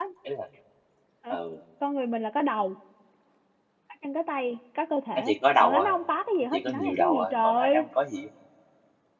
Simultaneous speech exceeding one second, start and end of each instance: 6.5-7.8

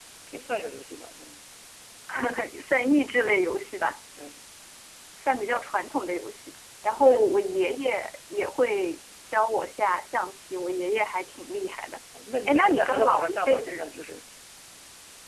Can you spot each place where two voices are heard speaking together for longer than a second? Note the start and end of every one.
12.5-14.0

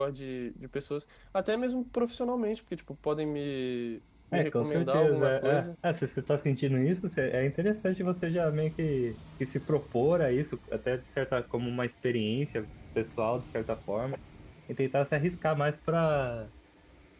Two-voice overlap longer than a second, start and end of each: 4.3-5.7

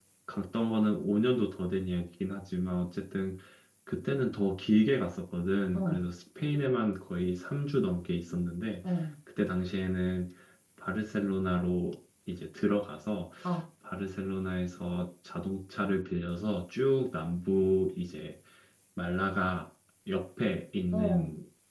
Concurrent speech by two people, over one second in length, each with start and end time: none

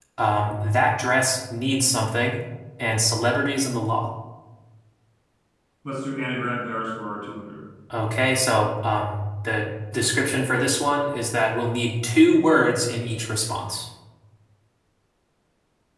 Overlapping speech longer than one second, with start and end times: none

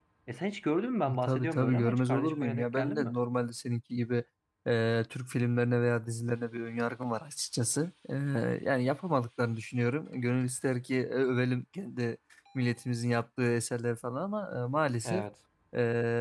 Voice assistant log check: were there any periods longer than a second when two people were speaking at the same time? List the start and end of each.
1.2-3.1

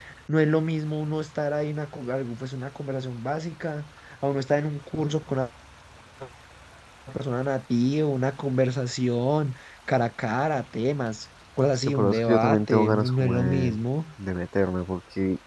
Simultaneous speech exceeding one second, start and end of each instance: 11.9-13.8

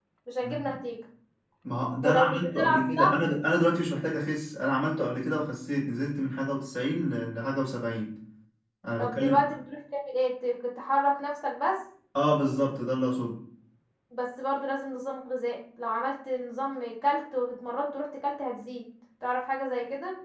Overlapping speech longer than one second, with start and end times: 2.0-3.2

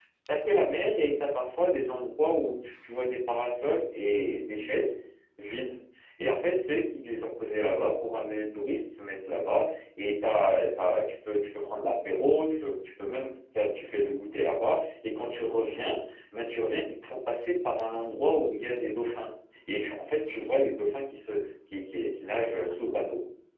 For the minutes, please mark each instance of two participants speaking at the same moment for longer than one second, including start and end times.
none

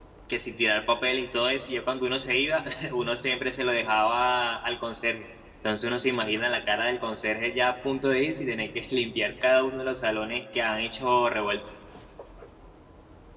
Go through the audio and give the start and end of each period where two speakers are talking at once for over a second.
none

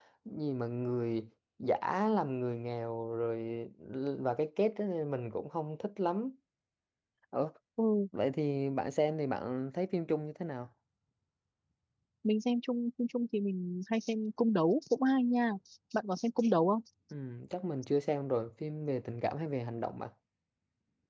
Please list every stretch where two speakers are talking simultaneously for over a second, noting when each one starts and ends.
none

